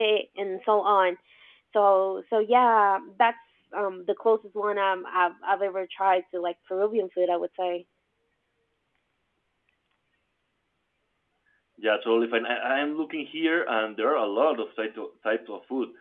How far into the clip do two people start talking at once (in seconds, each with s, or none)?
none